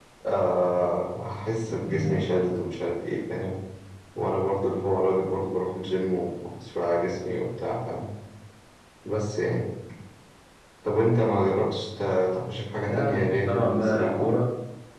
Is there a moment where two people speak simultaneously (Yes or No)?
Yes